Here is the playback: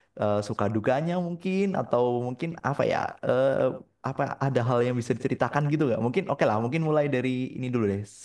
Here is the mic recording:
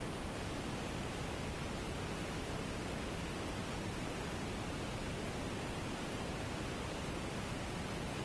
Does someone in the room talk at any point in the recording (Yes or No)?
No